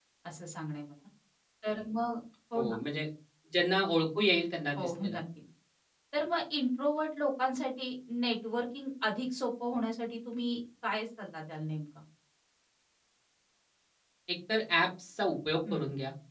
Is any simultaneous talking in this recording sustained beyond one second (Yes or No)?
No